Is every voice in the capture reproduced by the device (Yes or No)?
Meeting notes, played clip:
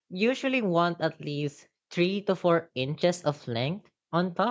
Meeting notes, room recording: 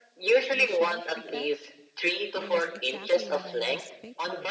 No